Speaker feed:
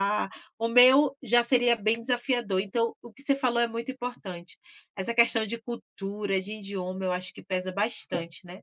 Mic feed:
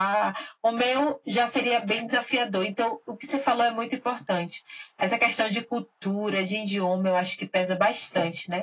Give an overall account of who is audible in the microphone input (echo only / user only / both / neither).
echo only